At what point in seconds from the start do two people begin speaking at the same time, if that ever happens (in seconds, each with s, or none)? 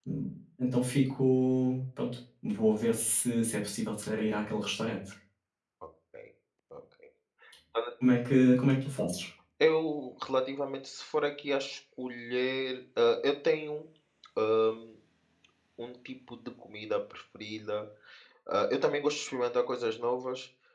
none